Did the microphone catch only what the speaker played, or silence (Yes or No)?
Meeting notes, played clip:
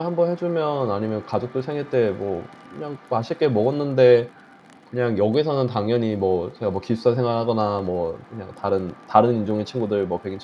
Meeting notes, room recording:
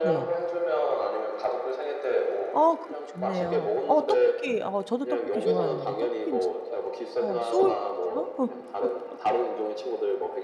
No